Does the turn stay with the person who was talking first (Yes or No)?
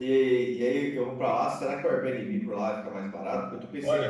No